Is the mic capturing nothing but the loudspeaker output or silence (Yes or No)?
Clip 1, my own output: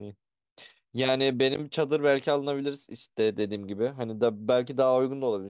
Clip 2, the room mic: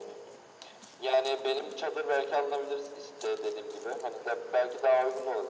Yes